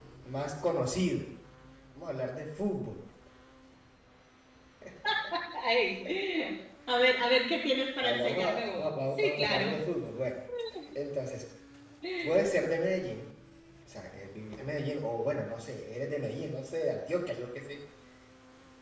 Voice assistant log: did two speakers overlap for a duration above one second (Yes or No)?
Yes